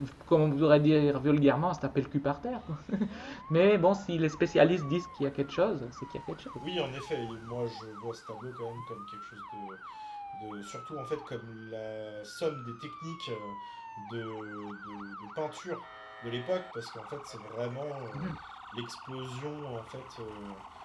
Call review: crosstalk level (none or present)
none